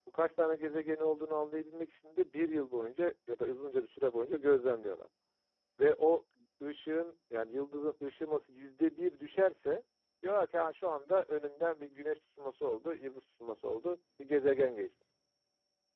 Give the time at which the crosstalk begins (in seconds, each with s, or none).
none